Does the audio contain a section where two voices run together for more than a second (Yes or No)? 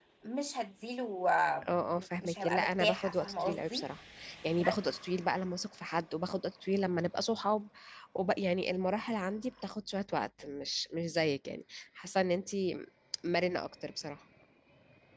Yes